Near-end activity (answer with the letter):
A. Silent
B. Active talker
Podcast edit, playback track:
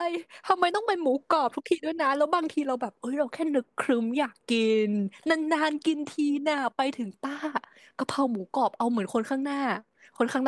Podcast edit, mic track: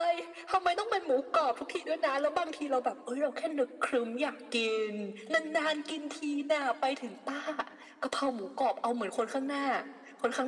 A